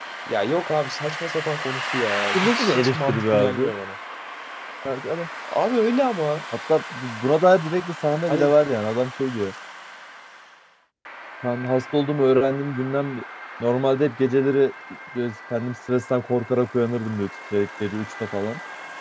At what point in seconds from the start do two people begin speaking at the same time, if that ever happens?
2.3 s

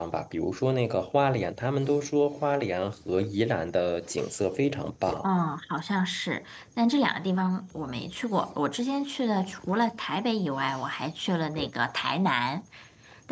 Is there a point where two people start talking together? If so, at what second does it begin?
none

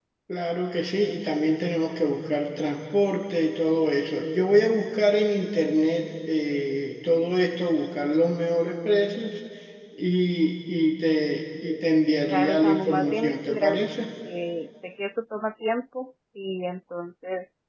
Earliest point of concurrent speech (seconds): 12.2 s

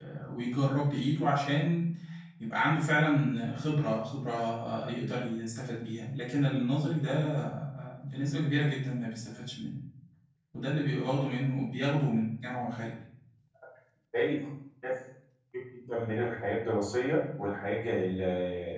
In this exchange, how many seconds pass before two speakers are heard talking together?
none

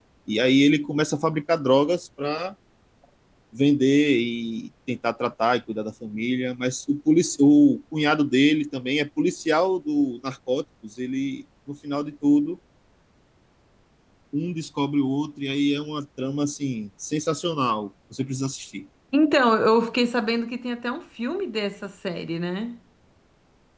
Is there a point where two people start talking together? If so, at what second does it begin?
none

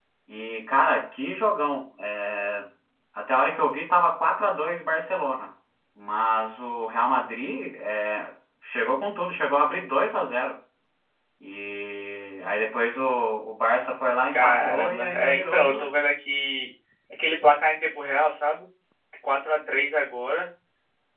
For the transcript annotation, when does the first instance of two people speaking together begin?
14.3 s

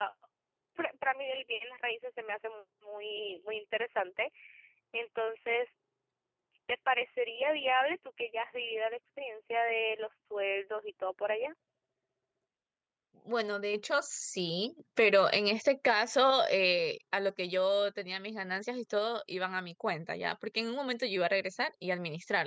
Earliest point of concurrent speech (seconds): none

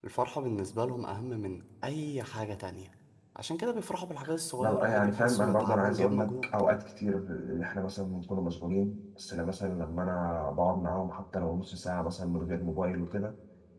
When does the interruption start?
4.6 s

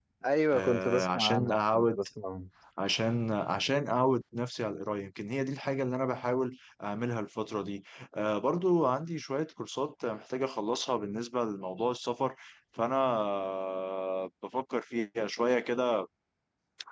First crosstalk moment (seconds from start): 0.5 s

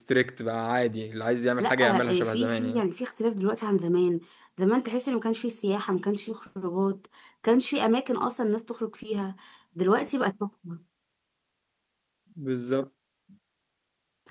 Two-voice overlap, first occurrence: 1.6 s

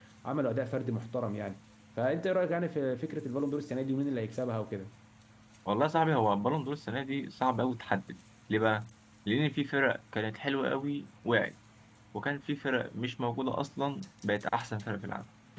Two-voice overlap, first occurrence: none

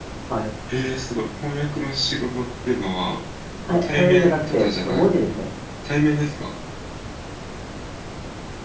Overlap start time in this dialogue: 3.8 s

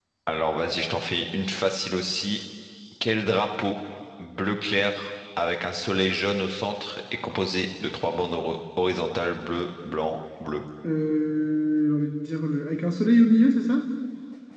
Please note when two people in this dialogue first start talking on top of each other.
none

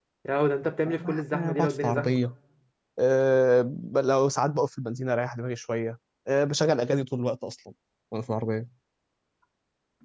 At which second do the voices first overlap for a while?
0.9 s

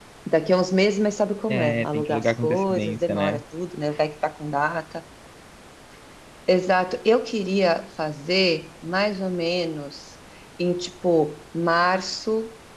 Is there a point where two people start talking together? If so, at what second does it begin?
1.5 s

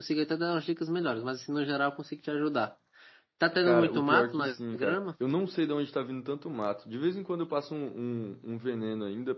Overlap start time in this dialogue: 3.6 s

